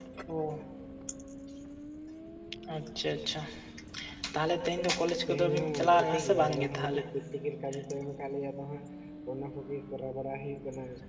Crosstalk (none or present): present